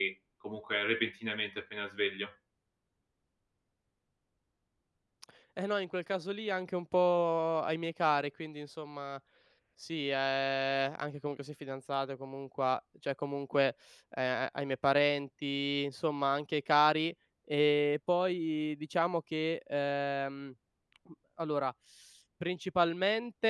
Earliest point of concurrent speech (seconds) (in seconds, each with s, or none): none